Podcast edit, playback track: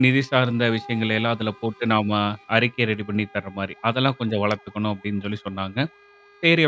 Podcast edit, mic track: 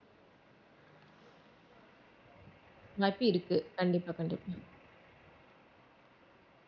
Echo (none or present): none